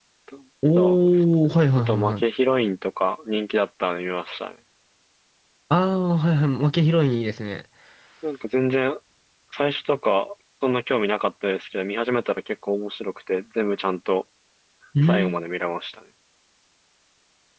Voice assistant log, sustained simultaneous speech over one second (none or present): present